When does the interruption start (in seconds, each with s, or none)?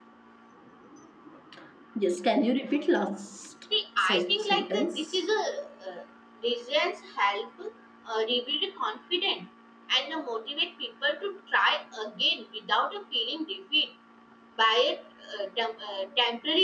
4.0 s